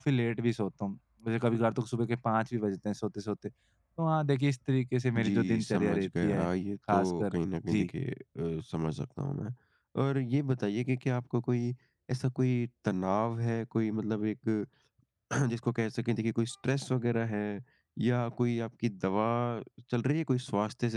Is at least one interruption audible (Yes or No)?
Yes